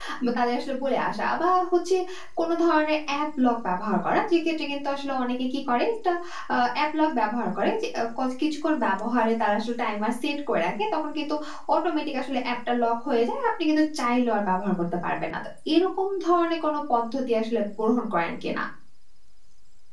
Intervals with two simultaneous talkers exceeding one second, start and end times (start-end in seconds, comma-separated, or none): none